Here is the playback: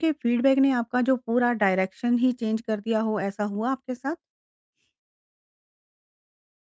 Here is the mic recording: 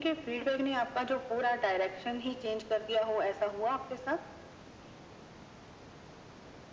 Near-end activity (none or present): none